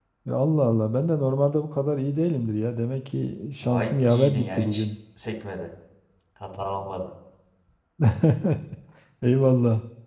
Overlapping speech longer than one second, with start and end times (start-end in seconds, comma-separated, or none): 3.6-4.8